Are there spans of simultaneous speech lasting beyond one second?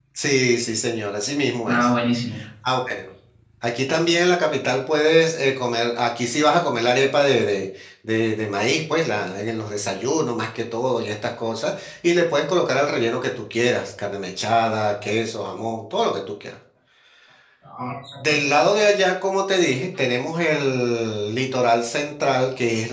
No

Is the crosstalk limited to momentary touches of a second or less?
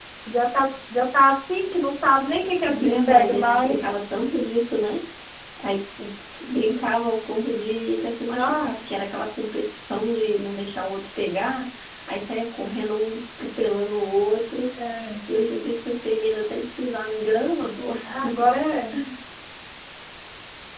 No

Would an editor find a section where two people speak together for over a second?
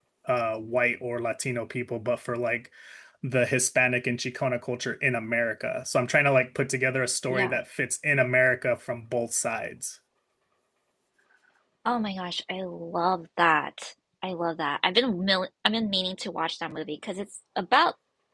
No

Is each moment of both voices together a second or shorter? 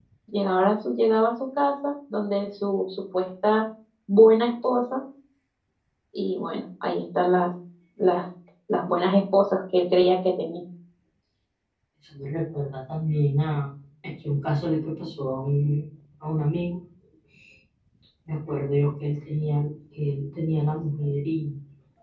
Yes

